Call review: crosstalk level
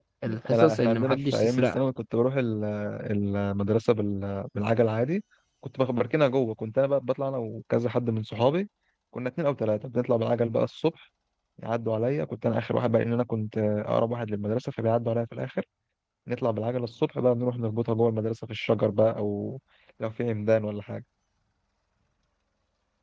present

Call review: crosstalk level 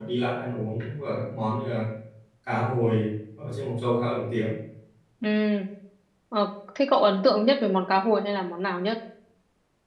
none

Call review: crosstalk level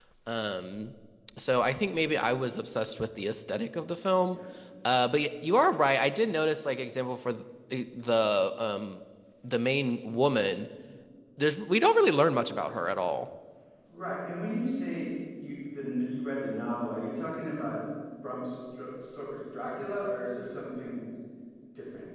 none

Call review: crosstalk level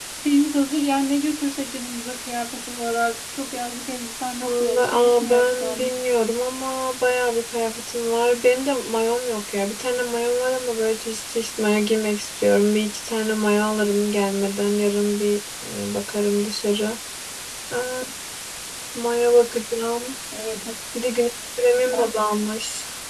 present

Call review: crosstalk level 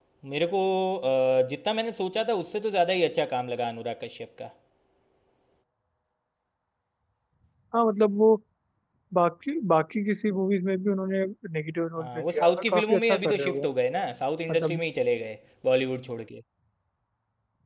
present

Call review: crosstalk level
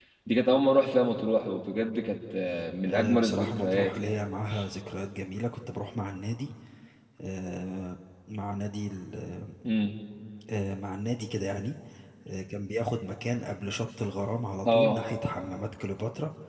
present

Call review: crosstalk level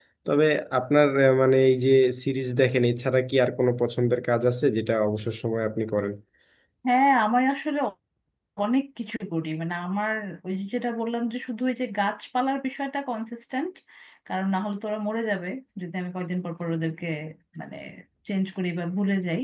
none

